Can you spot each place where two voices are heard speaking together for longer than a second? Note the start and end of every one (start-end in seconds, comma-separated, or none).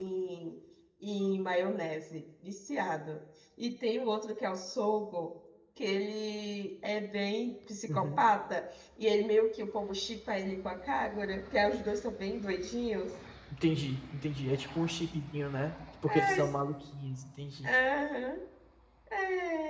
none